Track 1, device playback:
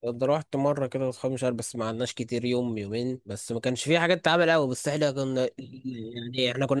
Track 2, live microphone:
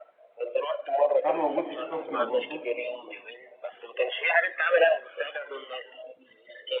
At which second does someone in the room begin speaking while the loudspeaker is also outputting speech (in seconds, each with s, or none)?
1.2 s